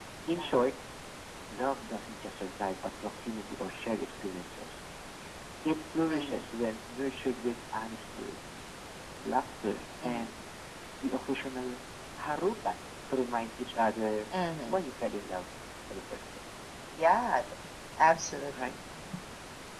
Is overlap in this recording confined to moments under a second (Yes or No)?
Yes